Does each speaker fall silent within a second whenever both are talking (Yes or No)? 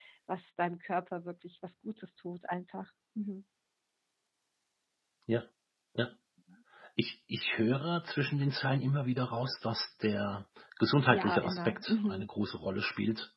No